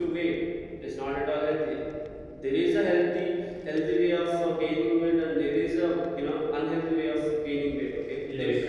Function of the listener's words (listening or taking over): taking over